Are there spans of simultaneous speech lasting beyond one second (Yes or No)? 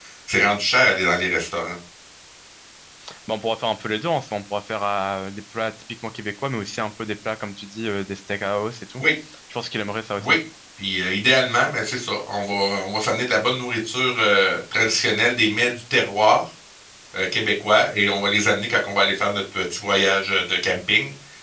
No